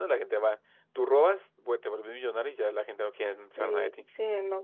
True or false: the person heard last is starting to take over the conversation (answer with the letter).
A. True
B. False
A